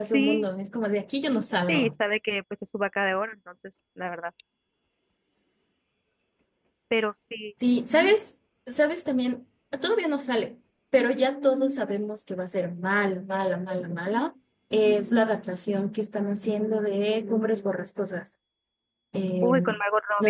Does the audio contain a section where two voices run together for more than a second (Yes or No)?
No